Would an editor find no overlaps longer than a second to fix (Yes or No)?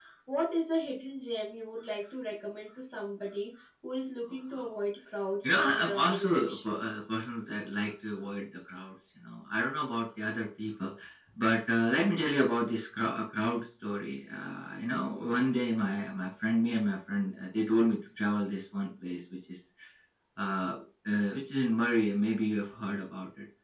No